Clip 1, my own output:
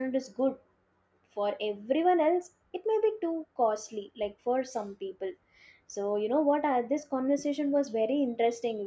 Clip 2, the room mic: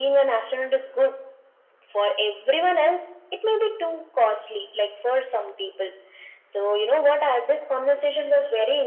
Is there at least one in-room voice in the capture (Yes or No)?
No